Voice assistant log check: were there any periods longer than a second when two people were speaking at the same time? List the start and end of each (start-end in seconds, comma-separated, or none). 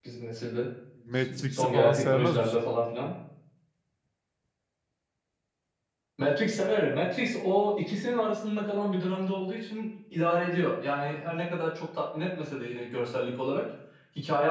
1.1-2.6